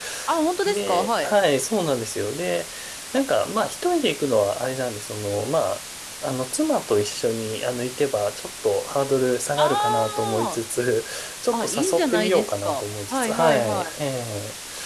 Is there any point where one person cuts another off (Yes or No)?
Yes